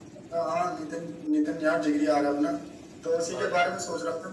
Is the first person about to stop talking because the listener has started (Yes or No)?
No